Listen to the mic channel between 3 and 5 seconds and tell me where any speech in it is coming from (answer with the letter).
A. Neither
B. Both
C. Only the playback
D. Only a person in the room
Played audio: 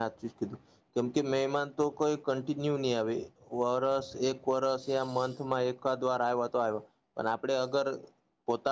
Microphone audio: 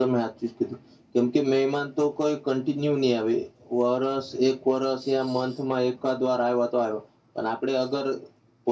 C